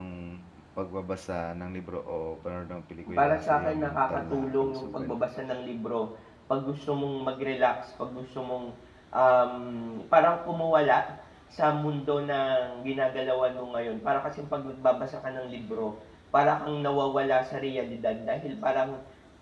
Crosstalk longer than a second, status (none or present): present